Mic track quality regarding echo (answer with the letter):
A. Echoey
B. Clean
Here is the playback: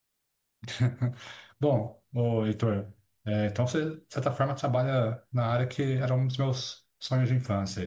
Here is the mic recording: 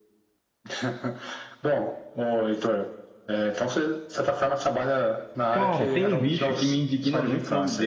A